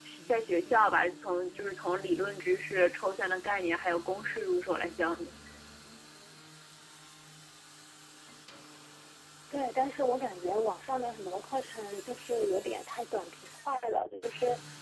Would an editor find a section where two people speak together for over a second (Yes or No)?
No